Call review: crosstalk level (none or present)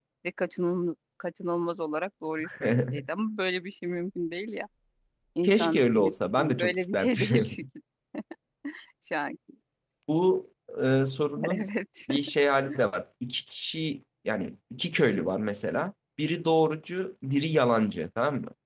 present